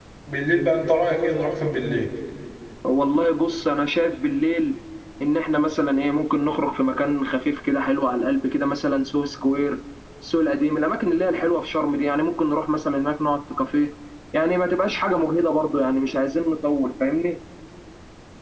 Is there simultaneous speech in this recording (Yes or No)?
No